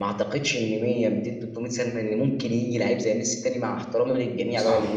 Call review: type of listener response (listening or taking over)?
listening